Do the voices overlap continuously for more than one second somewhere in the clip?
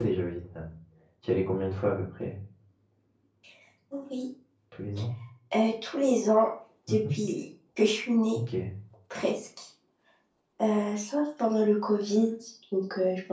No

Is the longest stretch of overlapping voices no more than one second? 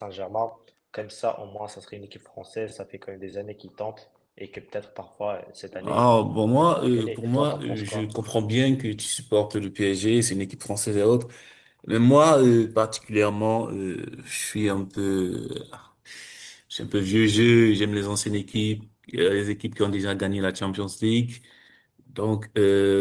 No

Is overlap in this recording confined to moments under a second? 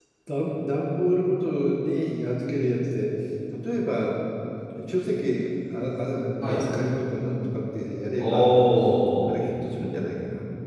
Yes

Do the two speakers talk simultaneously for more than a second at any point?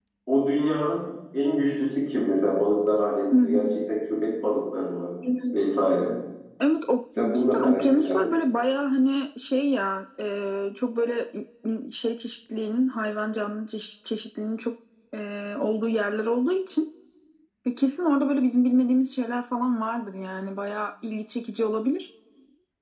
Yes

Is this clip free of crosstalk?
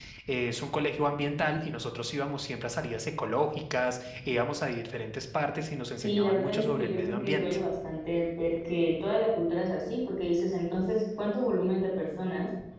No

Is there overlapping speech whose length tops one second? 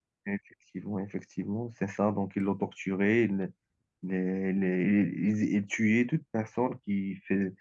No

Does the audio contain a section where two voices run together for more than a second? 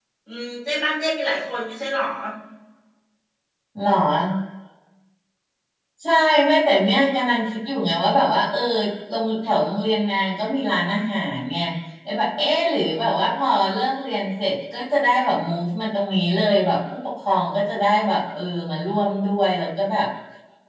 No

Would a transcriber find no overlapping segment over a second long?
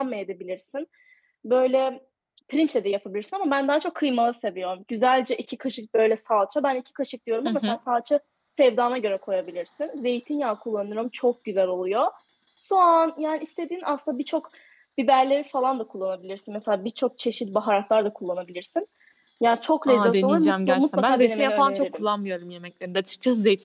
No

